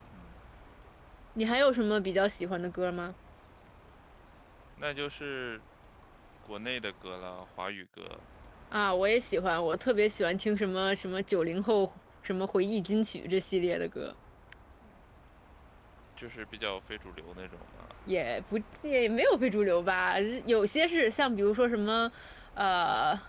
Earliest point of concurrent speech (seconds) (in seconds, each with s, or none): none